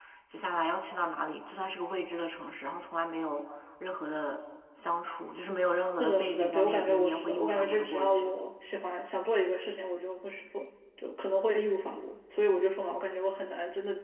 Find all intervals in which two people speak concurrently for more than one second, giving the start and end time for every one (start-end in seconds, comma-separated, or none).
6.0-8.3